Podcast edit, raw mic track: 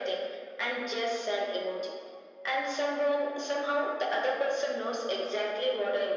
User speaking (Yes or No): No